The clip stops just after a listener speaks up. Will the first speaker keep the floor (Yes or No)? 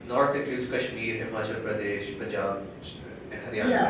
No